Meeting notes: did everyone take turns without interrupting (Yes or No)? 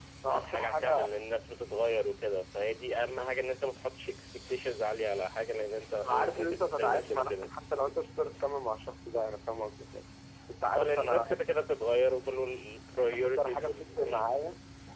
No